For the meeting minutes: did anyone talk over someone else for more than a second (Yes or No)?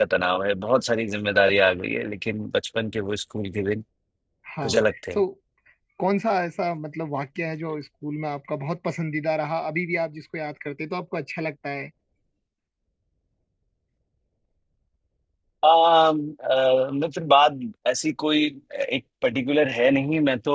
No